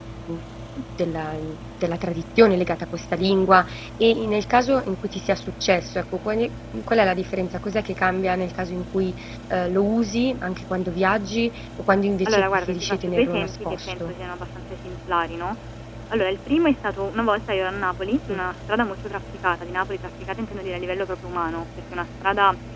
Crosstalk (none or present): present